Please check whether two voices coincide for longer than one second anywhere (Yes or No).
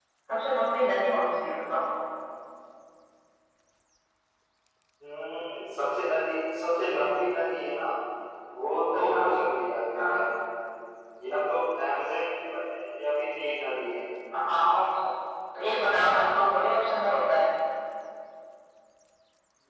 No